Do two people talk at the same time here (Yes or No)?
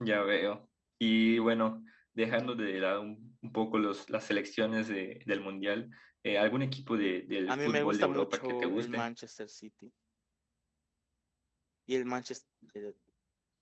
Yes